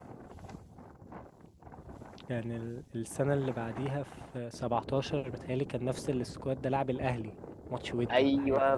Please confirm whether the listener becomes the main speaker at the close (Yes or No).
Yes